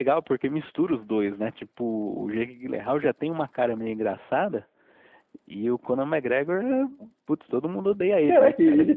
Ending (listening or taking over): taking over